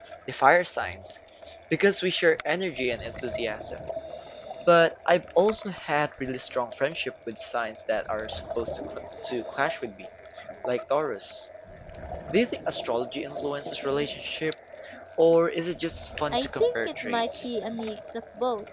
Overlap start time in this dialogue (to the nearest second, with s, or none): 16 s